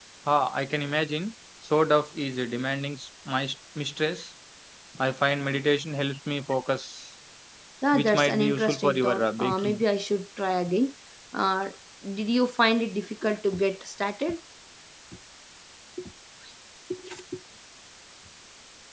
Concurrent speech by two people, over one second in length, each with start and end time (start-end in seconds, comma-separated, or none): 7.9-9.8